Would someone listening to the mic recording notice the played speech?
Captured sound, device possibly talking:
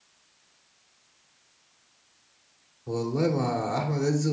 No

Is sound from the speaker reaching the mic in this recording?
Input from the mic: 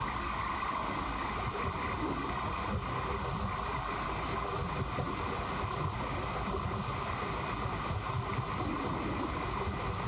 No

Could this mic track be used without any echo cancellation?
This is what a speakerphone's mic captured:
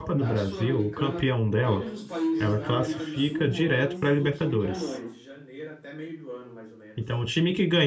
No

